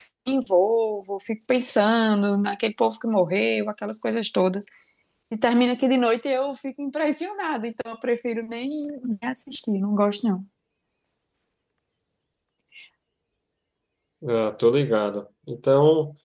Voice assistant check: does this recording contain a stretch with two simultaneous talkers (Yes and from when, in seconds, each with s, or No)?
No